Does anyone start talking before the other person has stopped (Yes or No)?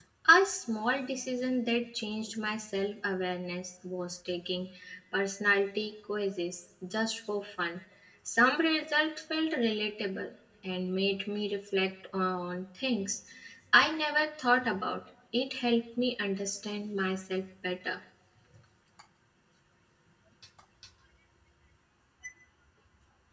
No